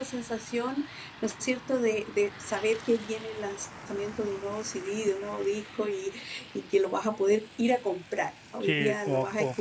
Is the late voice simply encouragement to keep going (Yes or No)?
No